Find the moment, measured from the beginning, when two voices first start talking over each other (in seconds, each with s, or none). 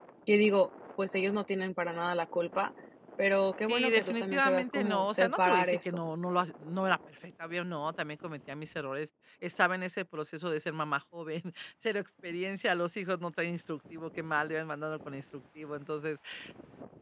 3.7 s